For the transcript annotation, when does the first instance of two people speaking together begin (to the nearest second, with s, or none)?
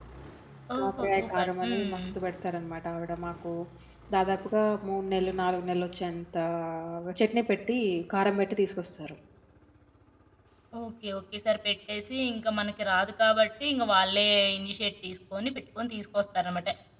1 s